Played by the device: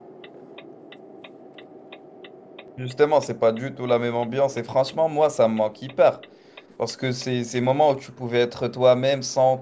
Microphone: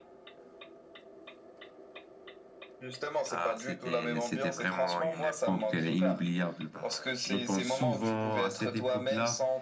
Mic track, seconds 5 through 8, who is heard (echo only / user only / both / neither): both